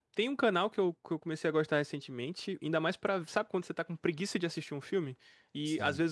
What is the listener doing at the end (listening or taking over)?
listening